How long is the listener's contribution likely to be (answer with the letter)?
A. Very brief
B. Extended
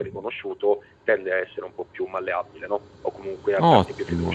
B